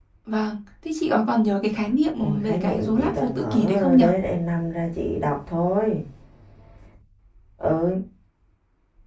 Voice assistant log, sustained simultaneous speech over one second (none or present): present